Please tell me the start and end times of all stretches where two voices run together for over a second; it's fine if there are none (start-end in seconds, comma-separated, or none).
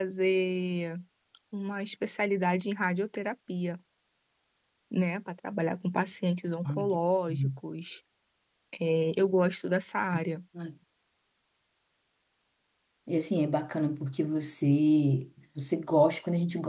none